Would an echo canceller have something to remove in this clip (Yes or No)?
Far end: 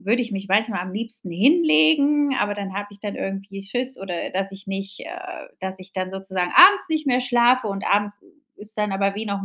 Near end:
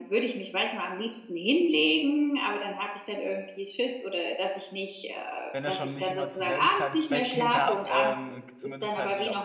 Yes